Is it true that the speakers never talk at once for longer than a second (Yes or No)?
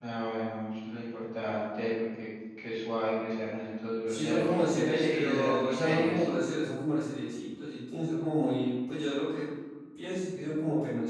No